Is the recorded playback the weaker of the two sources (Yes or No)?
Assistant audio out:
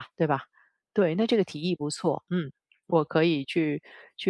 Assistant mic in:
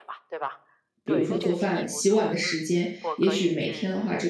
Yes